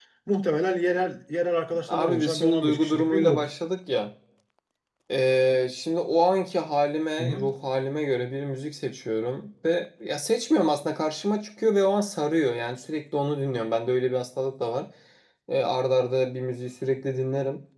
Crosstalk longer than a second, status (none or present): present